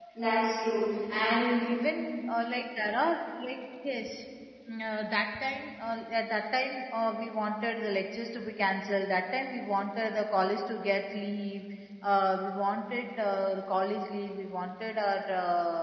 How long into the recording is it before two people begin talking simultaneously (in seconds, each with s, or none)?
none